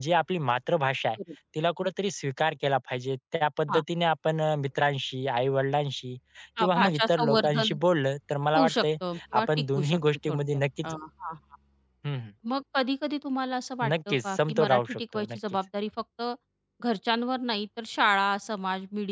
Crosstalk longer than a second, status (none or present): present